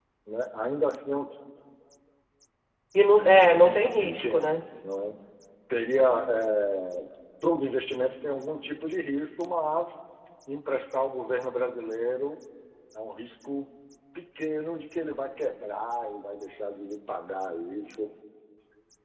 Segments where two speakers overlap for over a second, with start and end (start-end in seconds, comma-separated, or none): 3.2-4.6